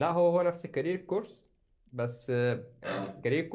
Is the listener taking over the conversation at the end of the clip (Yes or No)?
No